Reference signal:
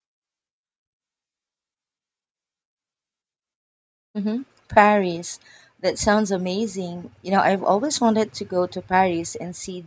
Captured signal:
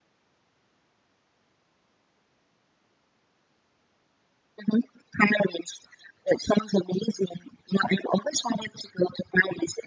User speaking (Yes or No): No